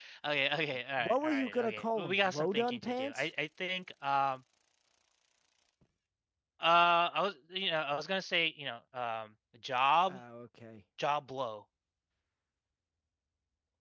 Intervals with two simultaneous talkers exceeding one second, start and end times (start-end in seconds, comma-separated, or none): 1.0-3.3